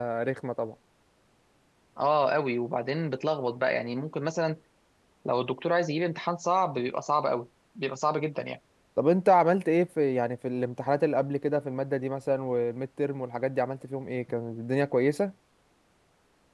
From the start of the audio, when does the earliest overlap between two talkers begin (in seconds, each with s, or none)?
none